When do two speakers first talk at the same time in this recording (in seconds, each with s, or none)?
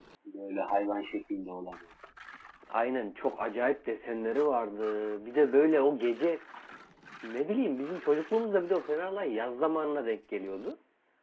none